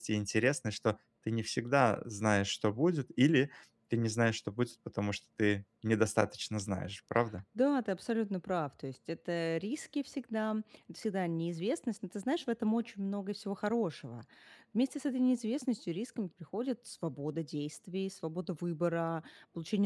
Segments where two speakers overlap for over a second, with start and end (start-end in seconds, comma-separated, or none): none